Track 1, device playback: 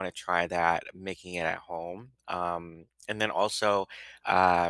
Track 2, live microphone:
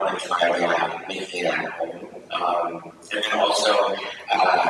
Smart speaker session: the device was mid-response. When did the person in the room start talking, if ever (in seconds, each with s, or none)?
none